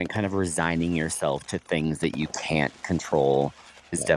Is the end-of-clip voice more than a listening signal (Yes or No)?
No